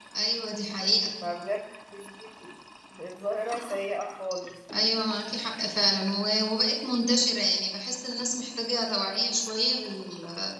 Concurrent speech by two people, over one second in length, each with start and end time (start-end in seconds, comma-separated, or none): none